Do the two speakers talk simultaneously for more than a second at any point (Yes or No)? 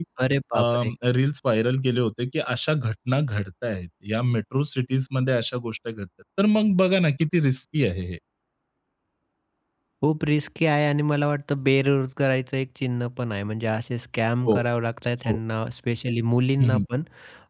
No